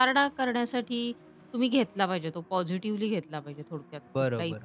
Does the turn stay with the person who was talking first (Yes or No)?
No